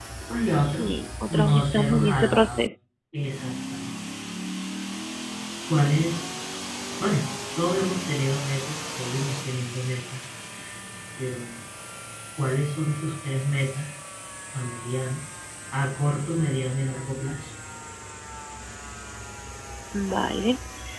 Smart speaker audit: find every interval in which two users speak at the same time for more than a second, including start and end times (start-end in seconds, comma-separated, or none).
1.3-2.6